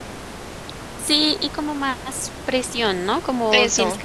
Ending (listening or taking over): listening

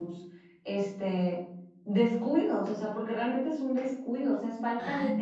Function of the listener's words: taking over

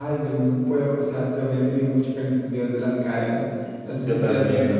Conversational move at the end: listening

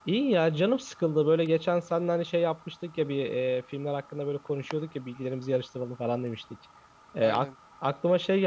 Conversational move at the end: listening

